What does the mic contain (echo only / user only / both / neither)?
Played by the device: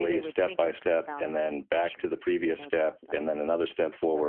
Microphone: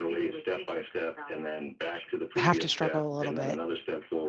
both